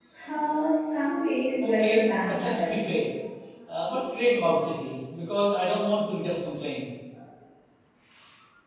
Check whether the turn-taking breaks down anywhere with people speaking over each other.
Yes, from 1.6 s

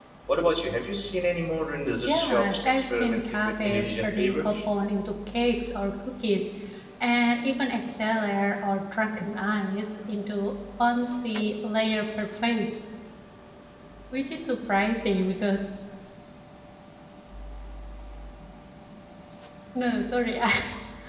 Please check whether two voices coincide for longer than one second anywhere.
Yes, from 2.1 s

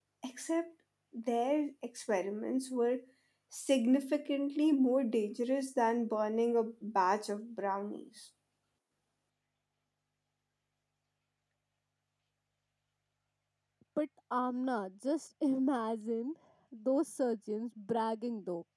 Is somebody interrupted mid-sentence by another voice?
No

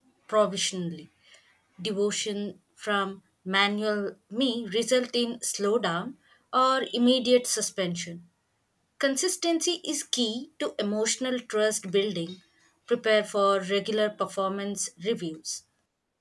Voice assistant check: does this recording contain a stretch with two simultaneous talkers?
No

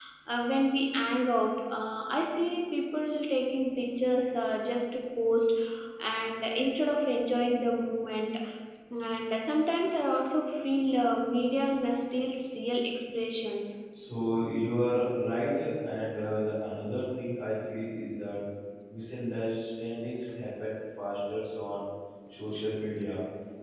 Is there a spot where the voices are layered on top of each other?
No

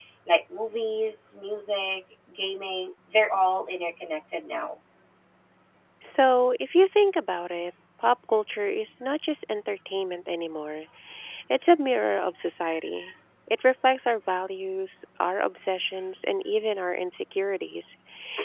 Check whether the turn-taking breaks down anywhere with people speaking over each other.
No

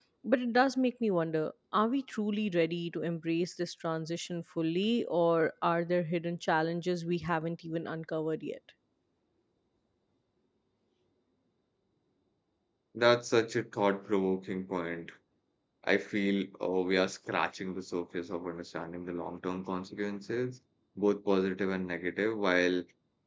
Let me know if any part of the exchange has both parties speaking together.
No

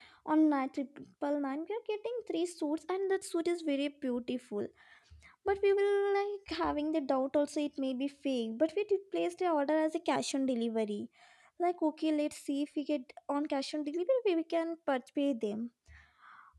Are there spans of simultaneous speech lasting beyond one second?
No

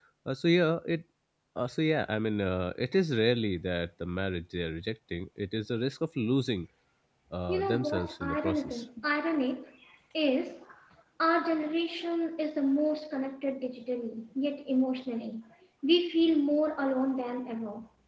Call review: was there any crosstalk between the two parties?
Yes, from 7.5 s

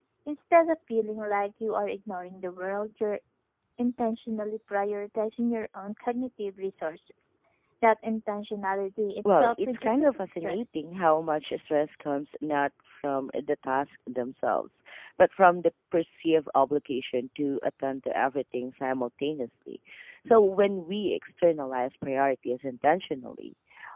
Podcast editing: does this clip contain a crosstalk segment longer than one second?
Yes, from 9.2 s

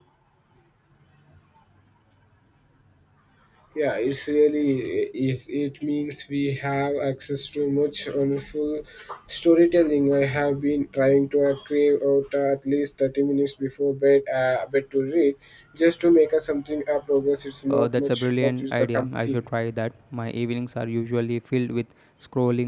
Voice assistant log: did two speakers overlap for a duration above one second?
Yes, from 17.7 s

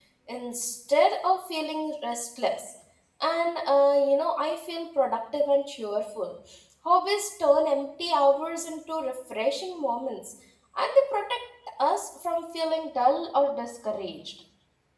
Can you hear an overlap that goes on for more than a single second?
No

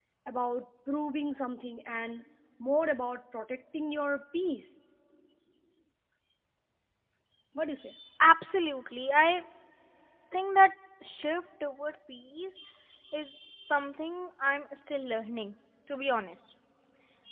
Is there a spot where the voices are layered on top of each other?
No

